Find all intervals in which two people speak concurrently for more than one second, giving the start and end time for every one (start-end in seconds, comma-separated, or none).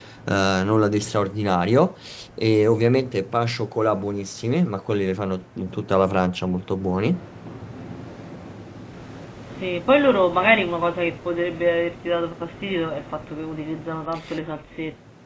none